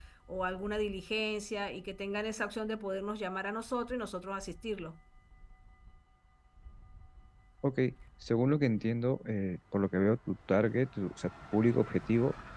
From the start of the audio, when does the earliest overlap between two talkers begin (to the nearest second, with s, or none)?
none